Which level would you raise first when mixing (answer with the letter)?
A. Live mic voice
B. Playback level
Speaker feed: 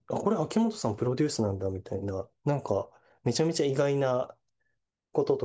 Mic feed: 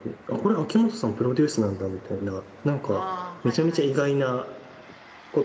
A